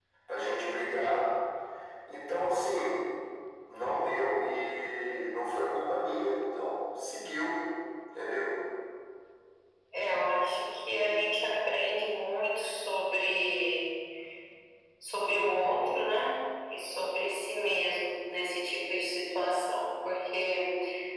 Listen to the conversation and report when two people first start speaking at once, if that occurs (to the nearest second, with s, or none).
none